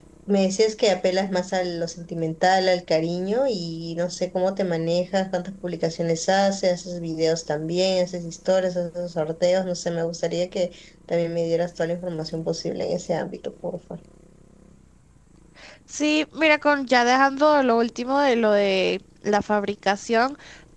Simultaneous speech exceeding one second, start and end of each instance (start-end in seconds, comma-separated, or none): none